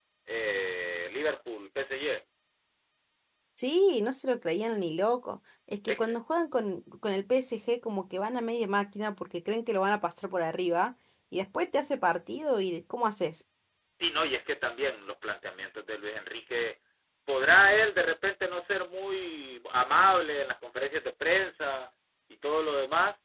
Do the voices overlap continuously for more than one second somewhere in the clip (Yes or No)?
No